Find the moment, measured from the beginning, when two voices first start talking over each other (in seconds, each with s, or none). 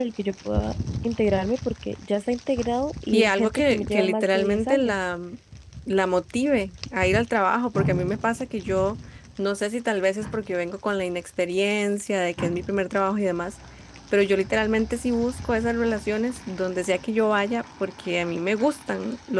3.1 s